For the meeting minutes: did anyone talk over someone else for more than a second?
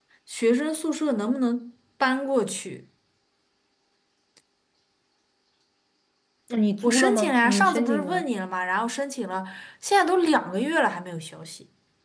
Yes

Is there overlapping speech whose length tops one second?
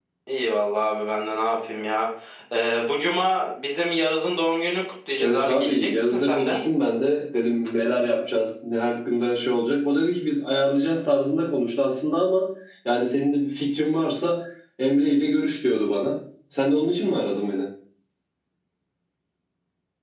Yes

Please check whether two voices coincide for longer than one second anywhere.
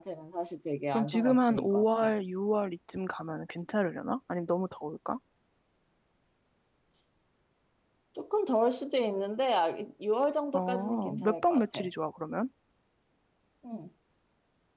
Yes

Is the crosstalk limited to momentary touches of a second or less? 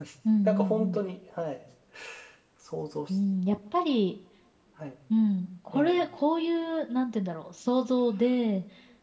Yes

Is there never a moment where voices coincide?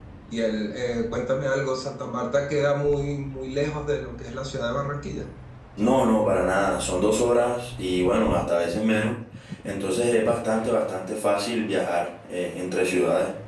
Yes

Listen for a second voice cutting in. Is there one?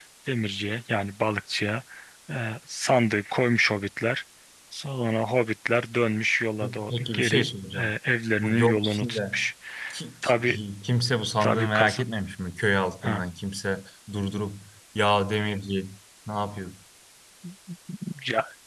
Yes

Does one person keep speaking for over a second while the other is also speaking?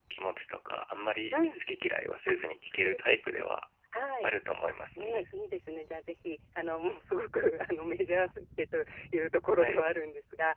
No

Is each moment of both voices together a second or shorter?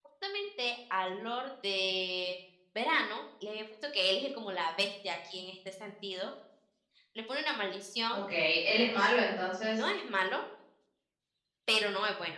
Yes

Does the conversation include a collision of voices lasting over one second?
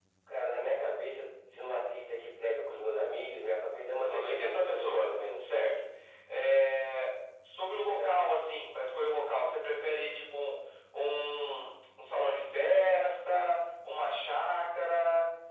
Yes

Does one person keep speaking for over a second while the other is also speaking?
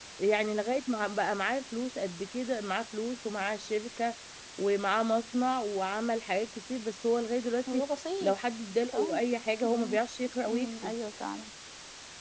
No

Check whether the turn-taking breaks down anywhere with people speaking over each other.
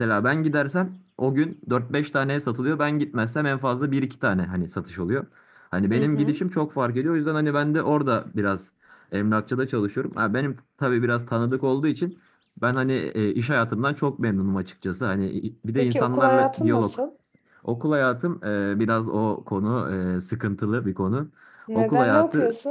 Yes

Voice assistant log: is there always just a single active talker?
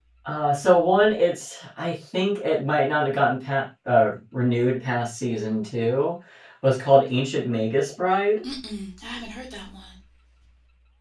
Yes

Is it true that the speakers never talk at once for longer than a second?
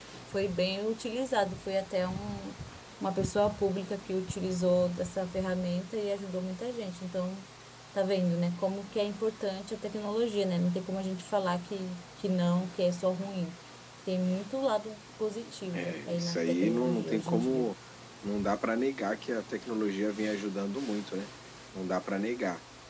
No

